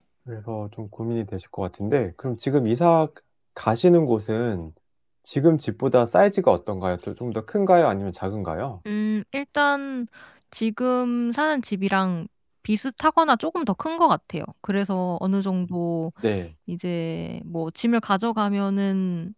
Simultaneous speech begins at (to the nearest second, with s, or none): none